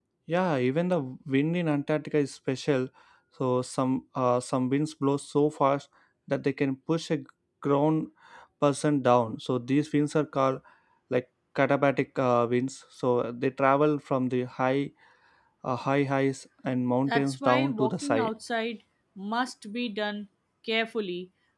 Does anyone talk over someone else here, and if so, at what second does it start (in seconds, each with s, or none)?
17.1 s